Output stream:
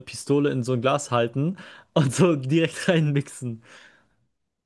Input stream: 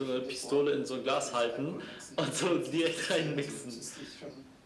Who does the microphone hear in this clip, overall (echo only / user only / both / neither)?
both